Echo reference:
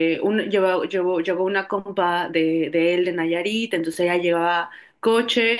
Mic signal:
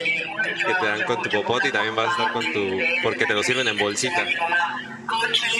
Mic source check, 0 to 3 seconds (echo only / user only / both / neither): both